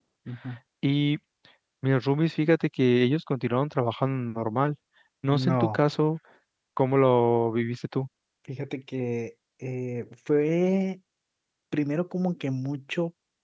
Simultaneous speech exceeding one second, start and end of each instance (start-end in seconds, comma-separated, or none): none